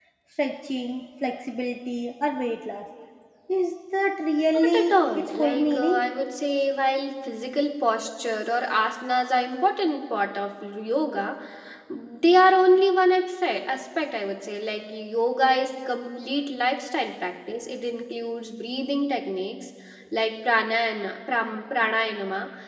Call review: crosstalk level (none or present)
present